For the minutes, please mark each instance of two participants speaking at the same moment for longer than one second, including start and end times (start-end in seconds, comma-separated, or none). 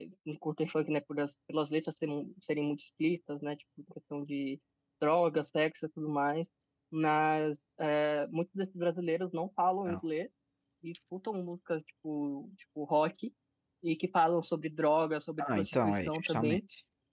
15.4-16.6